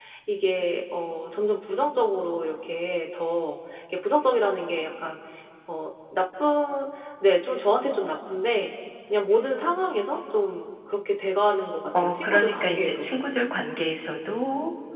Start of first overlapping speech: 11.9 s

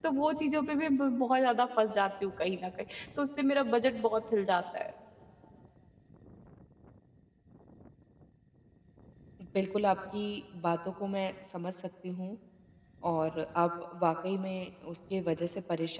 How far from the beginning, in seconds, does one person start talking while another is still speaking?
none

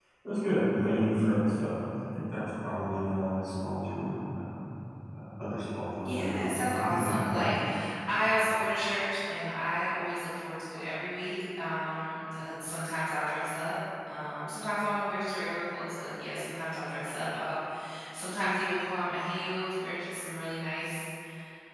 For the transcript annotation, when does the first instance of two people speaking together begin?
6.0 s

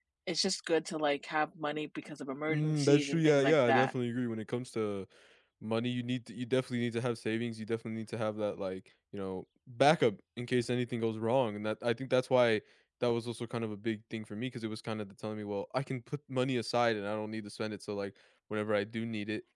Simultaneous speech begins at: 2.5 s

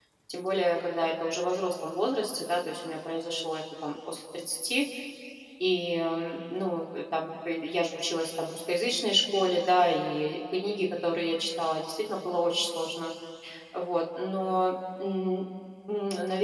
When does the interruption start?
none

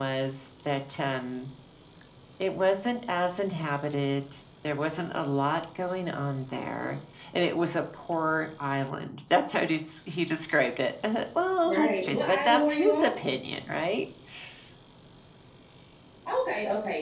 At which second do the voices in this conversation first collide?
11.6 s

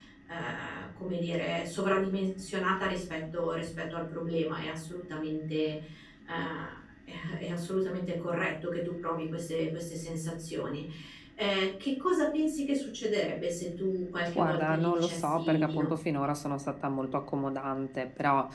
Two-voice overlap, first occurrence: 14.3 s

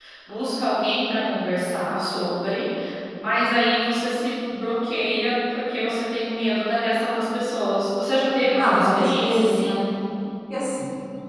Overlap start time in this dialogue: 8.6 s

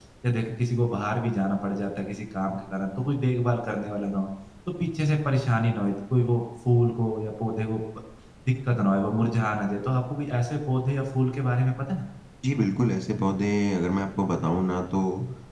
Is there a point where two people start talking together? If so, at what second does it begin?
none

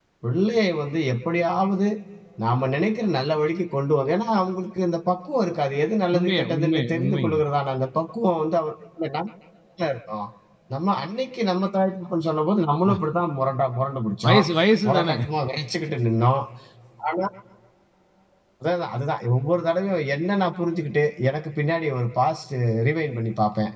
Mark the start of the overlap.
6.1 s

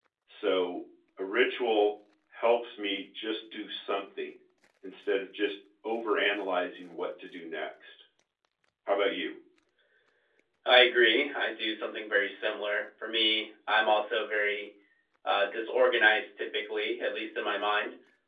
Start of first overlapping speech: none

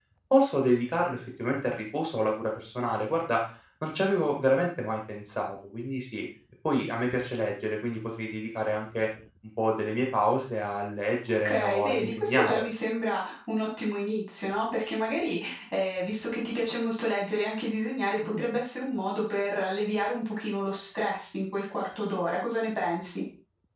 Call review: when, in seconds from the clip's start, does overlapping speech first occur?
11.4 s

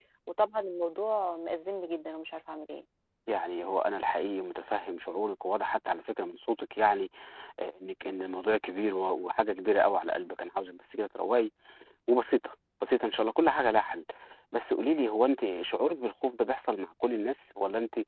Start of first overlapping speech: none

